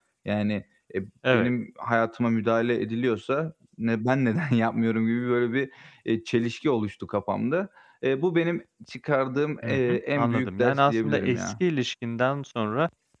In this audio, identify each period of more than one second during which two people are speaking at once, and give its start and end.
9.6-11.5

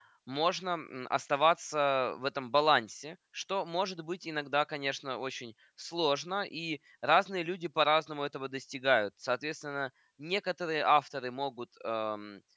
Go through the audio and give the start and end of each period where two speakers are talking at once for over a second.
none

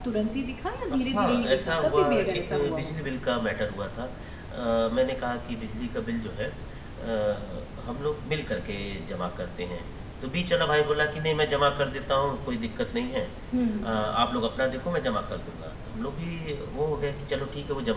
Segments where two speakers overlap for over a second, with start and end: 0.9-3.1

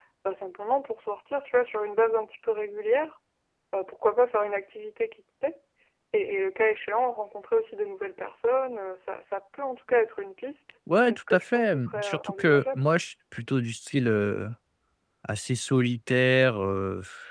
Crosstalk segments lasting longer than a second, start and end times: 11.1-12.8

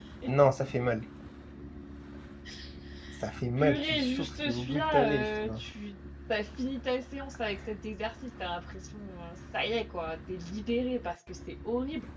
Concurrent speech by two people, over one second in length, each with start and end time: 3.6-5.6

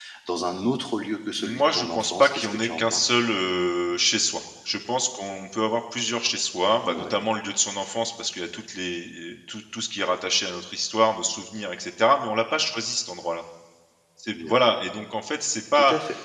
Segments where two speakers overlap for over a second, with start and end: 1.4-3.1

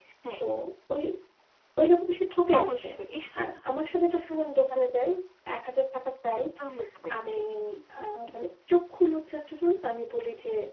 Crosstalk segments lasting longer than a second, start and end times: none

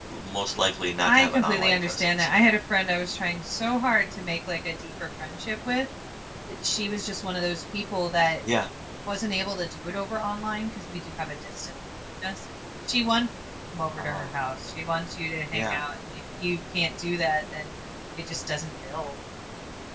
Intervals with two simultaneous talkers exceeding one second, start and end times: 1.0-2.5

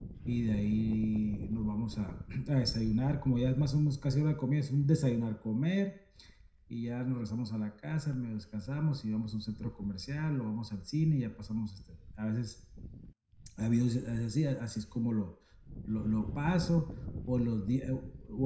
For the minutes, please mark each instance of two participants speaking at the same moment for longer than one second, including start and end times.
none

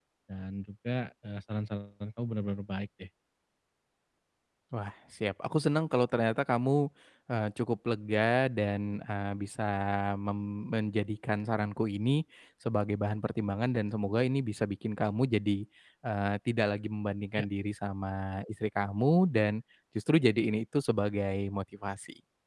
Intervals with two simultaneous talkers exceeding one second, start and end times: none

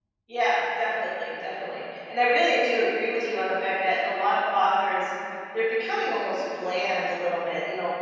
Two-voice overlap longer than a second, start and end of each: none

